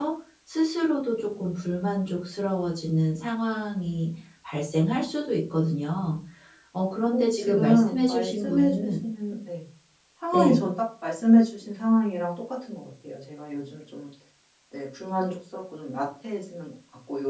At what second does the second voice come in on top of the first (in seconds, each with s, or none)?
7.1 s